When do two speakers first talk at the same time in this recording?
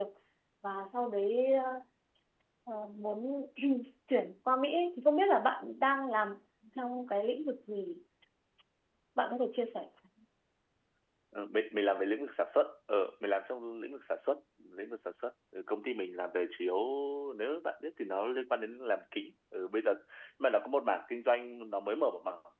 none

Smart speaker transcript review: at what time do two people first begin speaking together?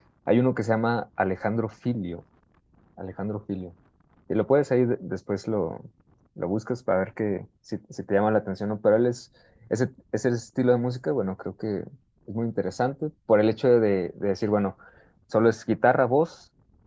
none

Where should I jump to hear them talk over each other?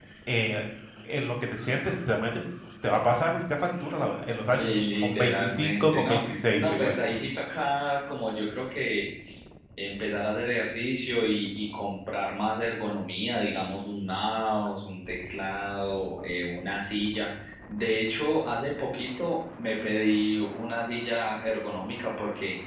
4 s

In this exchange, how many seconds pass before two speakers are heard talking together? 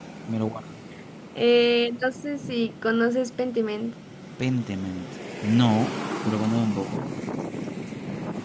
none

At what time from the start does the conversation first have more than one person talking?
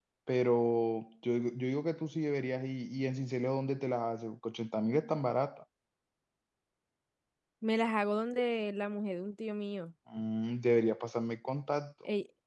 none

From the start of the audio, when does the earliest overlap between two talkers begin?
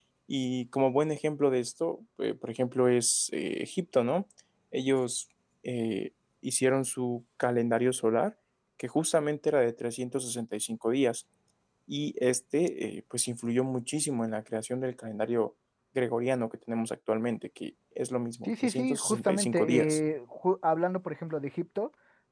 18 s

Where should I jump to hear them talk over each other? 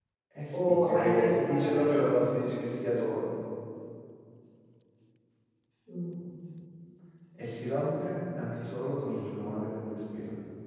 1 s

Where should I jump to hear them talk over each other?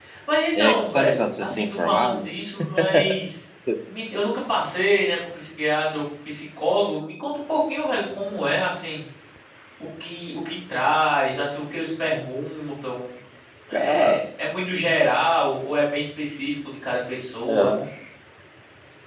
1 s

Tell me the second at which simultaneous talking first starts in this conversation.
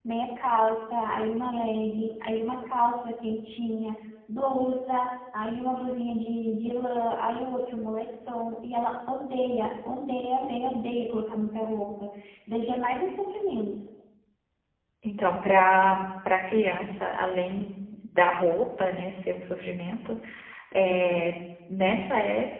none

